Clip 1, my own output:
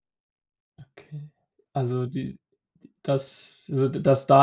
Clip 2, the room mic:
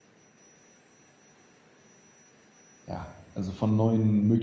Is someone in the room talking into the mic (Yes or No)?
Yes